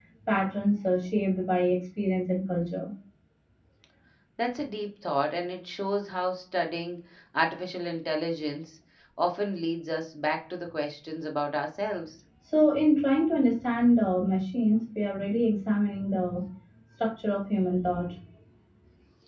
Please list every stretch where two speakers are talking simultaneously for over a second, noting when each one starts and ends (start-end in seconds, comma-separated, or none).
none